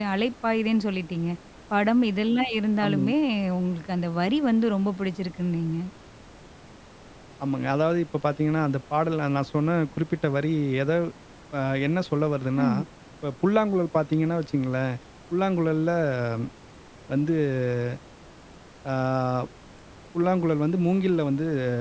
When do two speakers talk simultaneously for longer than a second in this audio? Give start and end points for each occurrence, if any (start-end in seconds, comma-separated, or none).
none